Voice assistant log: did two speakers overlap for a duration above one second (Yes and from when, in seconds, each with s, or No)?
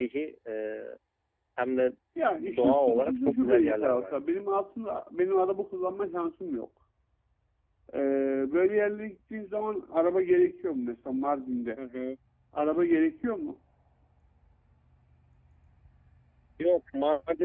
Yes, from 2.6 s